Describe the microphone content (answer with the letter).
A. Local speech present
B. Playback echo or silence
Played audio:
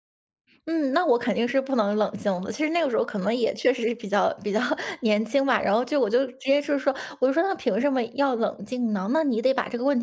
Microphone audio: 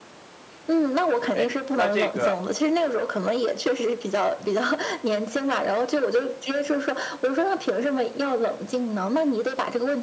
A